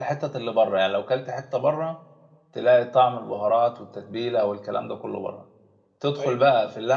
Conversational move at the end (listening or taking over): listening